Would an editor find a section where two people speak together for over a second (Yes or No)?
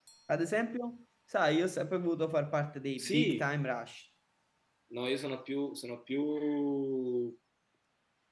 No